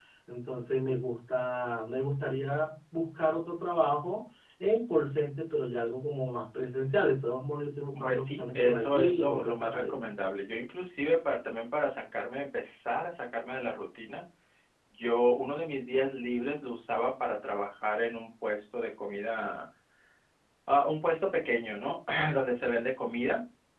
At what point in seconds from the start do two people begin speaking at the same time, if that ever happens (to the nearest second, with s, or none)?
8 s